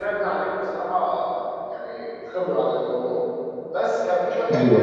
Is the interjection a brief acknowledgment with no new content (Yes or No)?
Yes